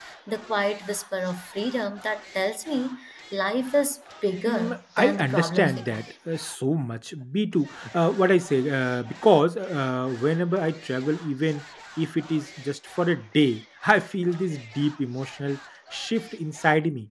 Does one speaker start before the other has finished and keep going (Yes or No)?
Yes